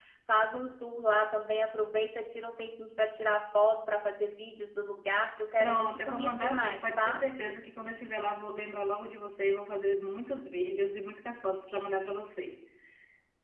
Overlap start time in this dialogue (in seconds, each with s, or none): 5.6 s